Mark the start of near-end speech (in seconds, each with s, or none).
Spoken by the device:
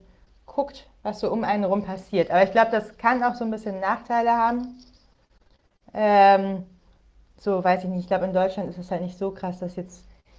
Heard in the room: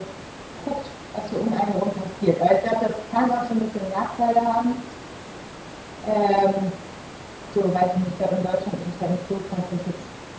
none